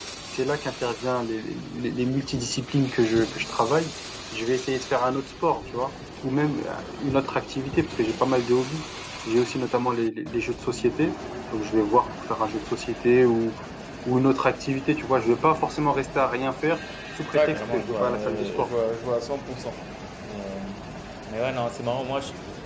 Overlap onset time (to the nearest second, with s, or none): 17 s